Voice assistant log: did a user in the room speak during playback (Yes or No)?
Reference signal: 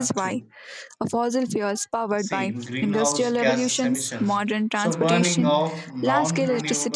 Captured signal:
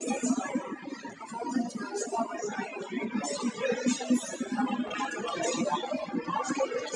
No